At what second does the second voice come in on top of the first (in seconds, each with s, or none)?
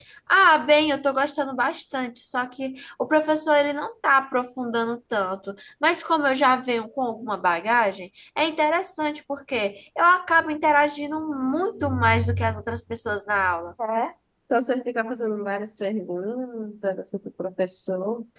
none